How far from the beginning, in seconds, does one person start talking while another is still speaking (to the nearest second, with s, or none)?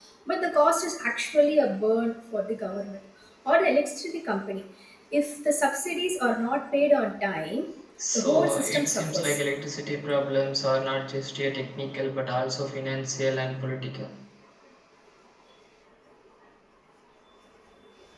8 s